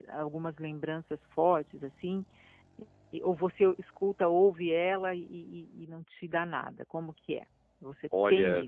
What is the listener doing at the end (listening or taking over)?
taking over